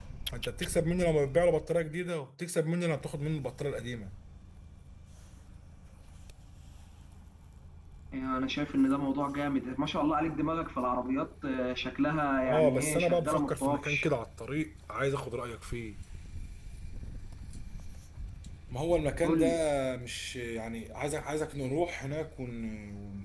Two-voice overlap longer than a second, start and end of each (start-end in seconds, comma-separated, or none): 12.4-14.1